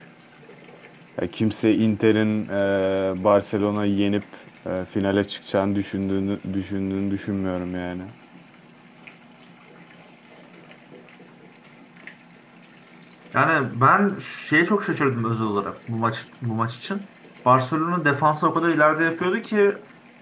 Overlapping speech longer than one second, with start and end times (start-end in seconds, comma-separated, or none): none